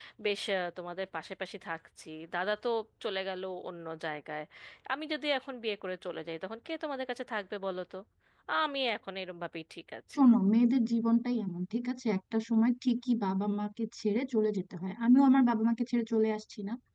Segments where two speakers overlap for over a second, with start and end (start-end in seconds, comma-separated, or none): none